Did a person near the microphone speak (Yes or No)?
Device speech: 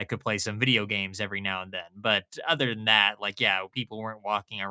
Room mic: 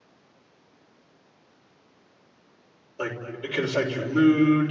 Yes